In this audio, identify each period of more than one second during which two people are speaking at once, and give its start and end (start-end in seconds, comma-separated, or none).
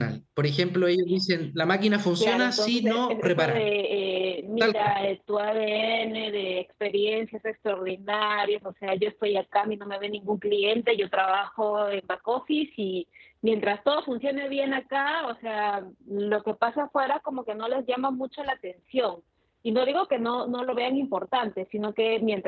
2.2-3.7